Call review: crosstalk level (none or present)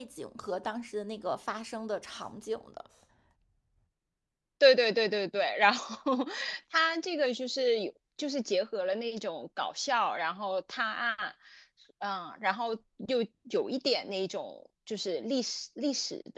none